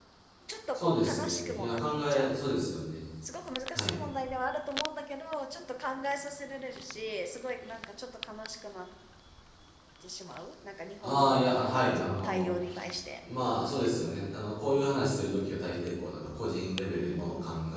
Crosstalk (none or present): present